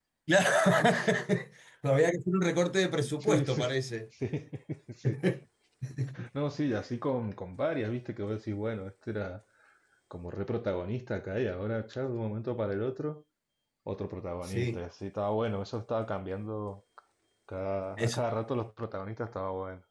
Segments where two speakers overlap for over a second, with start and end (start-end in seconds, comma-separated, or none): none